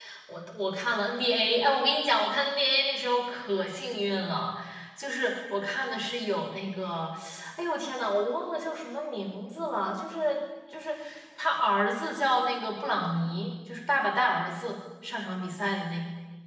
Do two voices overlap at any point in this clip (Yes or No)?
No